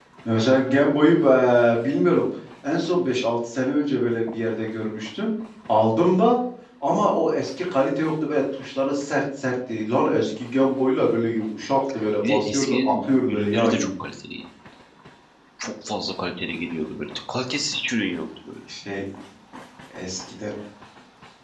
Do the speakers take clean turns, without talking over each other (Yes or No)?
No